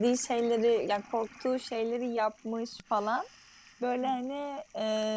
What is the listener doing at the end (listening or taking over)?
listening